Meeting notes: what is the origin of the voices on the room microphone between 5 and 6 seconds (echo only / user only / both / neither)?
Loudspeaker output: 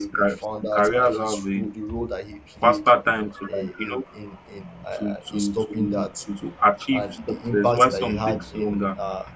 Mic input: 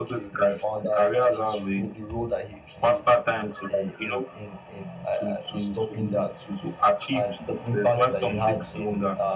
echo only